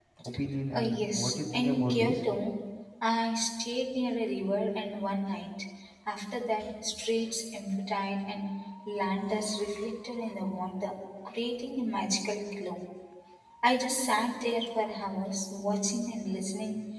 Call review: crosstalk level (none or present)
present